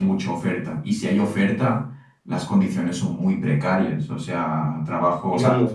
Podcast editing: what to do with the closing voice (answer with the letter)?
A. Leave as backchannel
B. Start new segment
A